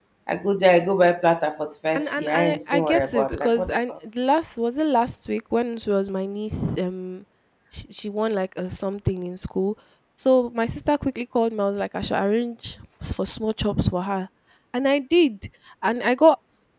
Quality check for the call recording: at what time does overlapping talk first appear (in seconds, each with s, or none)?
1.9 s